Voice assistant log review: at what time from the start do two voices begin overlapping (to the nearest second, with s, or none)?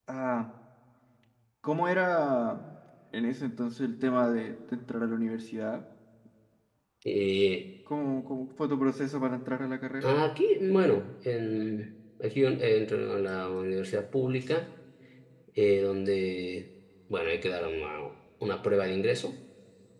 none